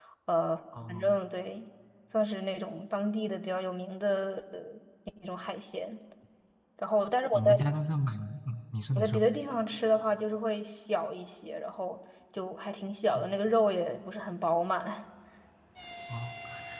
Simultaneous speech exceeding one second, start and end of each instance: none

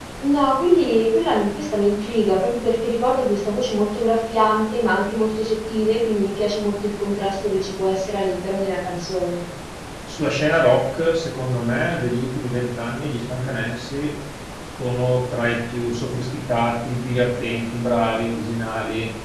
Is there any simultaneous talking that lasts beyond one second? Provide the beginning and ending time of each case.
none

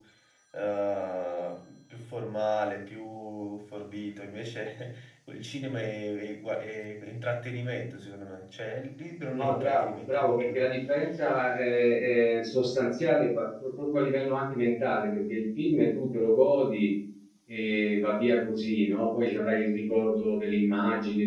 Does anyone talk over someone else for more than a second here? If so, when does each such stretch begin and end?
9.3-10.7

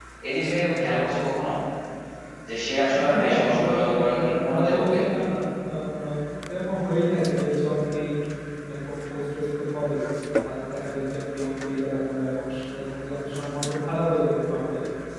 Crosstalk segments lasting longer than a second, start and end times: 3.1-5.0

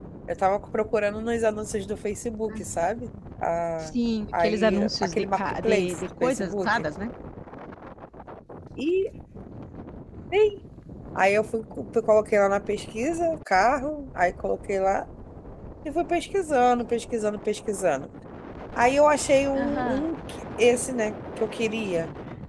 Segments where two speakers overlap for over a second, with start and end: 4.4-6.7

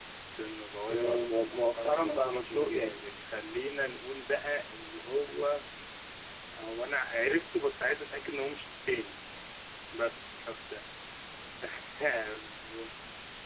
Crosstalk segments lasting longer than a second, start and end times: 0.9-3.0

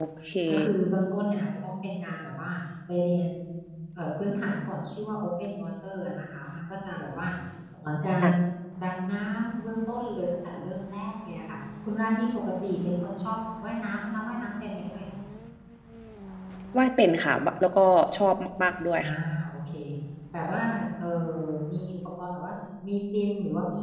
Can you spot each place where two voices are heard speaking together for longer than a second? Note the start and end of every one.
none

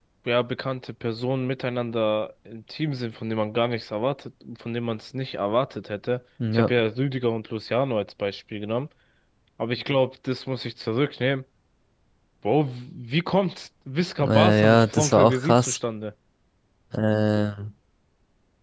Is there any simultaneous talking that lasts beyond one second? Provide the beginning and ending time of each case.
14.2-15.8

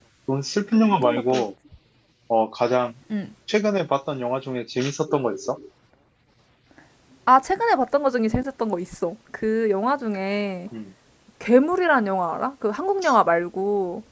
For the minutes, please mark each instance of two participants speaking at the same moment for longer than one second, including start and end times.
none

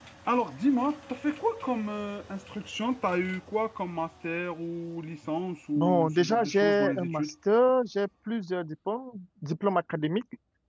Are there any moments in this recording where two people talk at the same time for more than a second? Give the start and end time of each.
5.8-7.3

